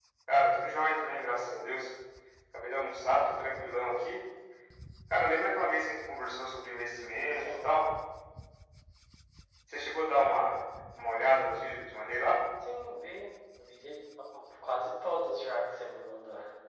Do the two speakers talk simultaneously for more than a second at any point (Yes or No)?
No